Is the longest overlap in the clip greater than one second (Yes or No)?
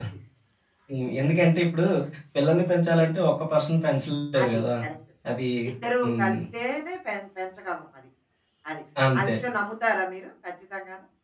No